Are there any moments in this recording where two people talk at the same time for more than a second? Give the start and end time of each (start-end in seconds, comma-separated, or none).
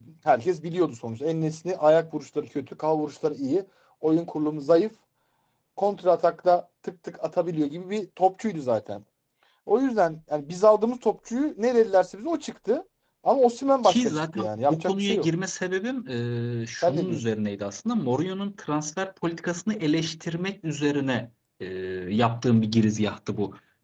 13.8-15.3